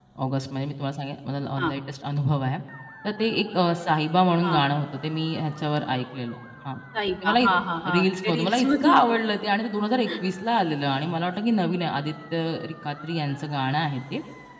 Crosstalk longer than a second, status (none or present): present